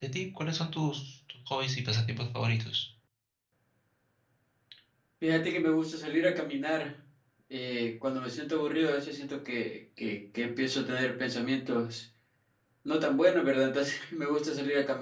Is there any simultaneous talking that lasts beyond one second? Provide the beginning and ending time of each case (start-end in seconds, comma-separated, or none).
none